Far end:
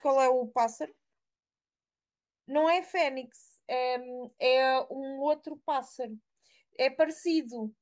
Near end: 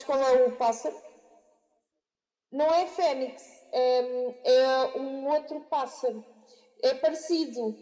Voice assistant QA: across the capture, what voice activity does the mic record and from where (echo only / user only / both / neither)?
echo only